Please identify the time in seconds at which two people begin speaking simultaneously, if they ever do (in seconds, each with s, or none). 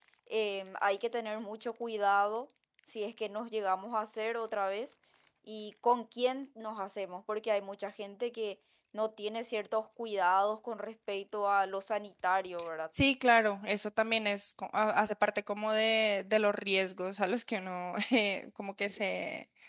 none